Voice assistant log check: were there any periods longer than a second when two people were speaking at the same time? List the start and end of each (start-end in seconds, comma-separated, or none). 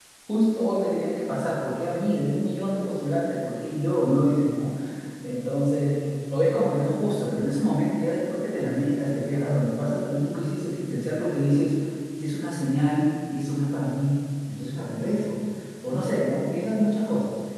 none